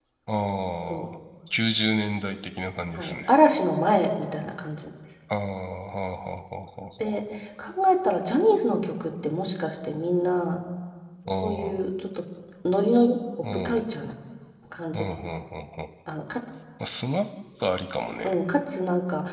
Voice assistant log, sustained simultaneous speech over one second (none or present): none